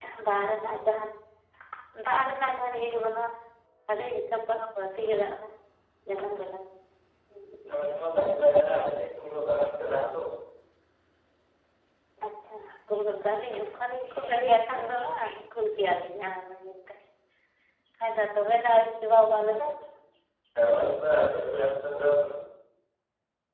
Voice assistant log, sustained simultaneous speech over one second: none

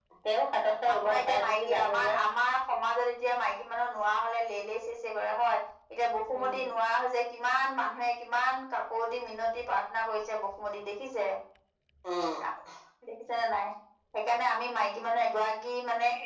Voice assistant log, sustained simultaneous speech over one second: present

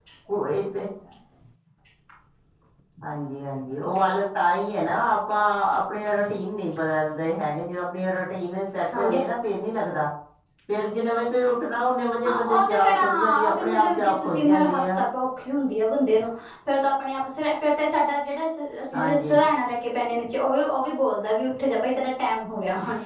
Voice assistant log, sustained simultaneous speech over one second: present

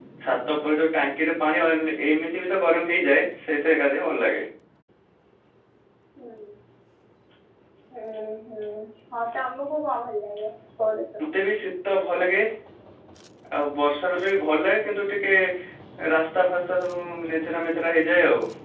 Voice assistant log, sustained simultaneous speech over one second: none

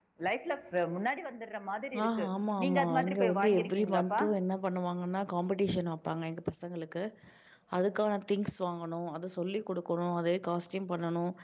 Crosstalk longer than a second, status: present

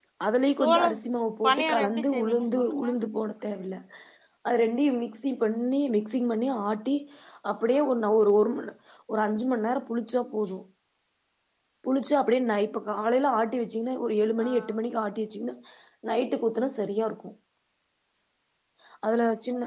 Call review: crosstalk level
present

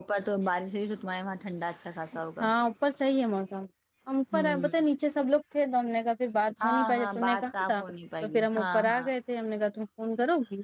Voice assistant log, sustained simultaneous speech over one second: present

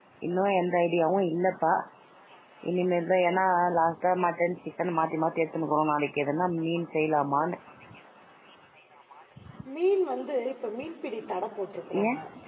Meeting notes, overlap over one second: none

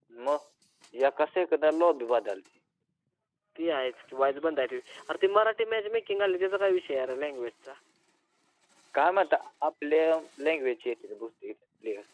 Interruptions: none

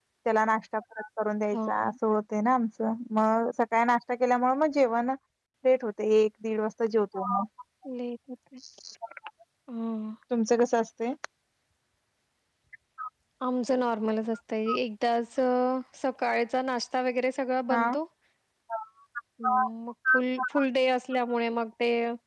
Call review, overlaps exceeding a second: none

